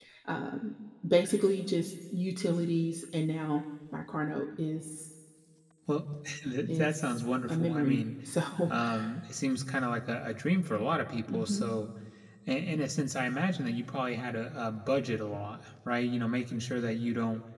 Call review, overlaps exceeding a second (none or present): present